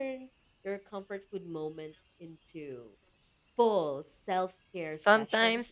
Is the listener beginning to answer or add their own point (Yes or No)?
Yes